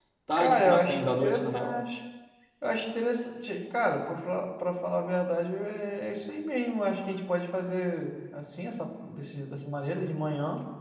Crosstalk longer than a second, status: present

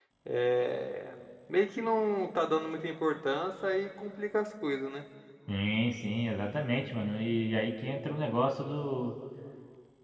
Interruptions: none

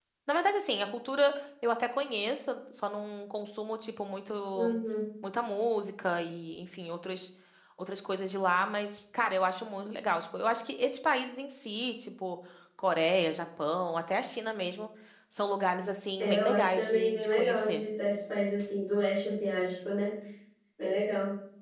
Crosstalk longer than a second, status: present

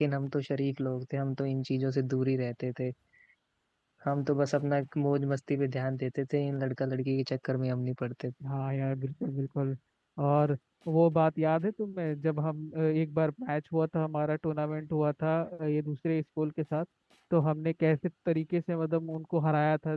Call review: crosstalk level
none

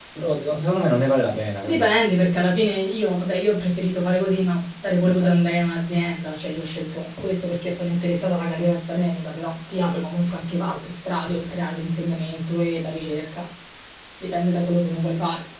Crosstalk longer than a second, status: none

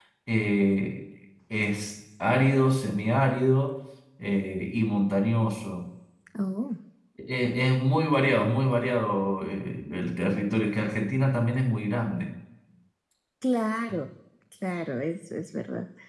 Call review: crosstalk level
none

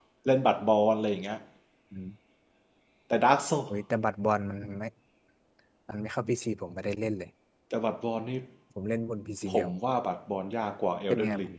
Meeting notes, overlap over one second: none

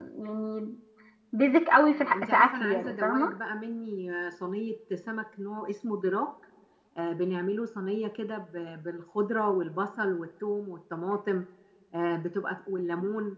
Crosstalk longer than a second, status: present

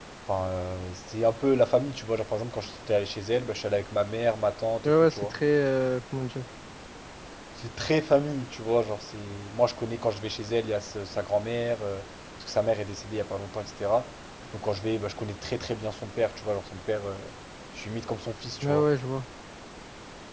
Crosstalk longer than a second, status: none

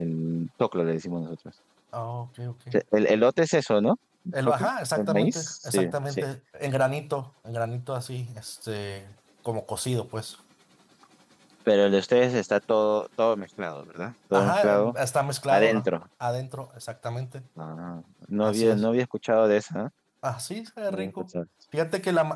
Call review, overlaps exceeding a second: present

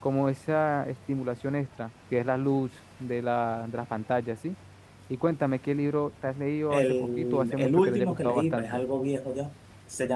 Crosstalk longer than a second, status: present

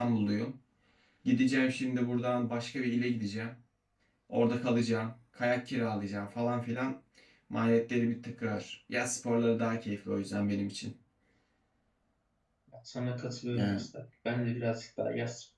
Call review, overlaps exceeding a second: none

